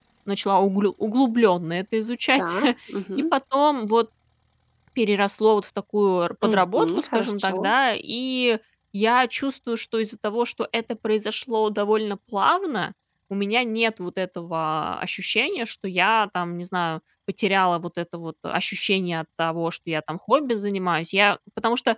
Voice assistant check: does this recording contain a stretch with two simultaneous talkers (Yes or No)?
Yes